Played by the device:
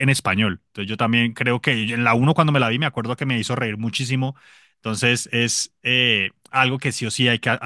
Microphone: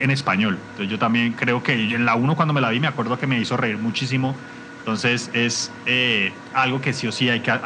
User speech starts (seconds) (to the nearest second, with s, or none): none